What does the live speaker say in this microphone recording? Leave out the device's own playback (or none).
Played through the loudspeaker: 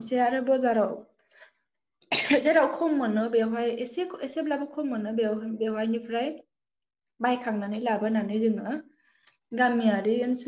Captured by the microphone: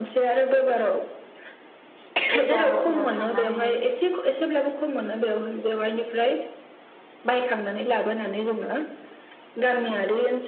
बजारफोराव थांनानै